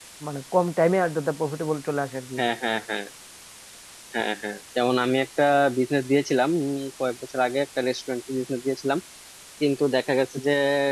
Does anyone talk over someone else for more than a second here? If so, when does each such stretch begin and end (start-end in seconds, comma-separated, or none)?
none